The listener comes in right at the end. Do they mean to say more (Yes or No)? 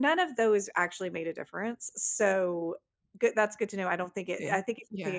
No